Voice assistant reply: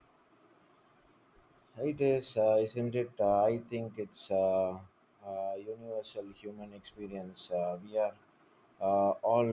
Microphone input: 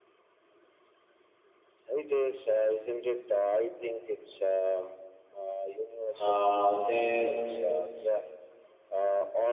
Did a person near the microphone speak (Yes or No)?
Yes